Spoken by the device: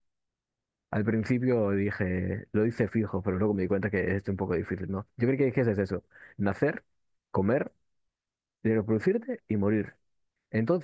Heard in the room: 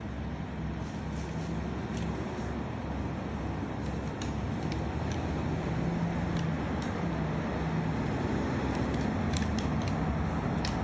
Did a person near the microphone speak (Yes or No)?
No